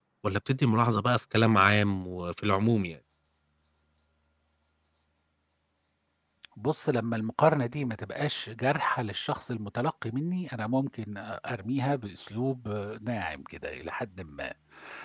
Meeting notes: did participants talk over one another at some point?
No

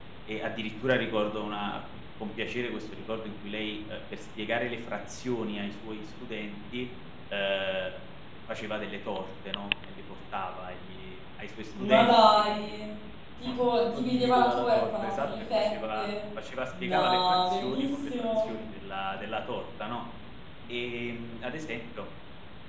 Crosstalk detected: Yes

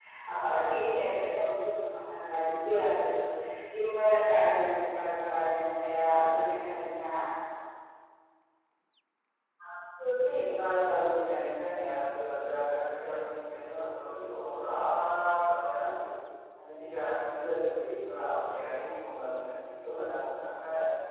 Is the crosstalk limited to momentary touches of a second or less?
Yes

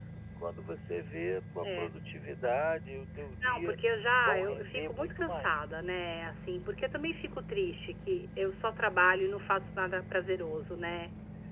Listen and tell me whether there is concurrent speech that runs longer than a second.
Yes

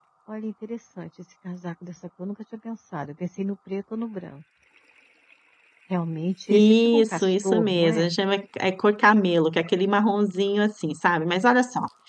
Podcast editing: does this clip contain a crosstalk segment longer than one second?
Yes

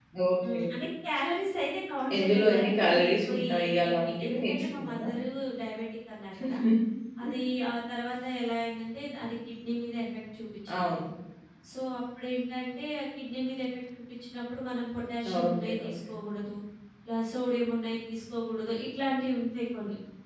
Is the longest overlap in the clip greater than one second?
Yes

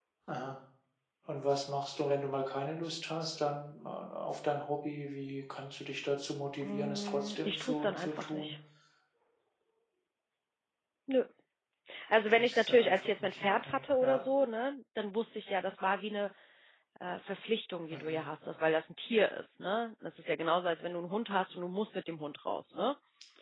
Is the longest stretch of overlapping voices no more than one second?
No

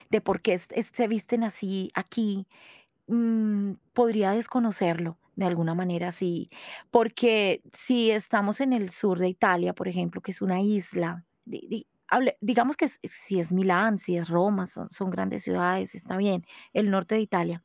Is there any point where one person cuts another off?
No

